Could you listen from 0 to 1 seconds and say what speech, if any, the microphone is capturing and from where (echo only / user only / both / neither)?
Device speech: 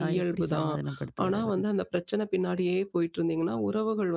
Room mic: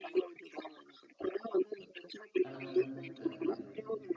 echo only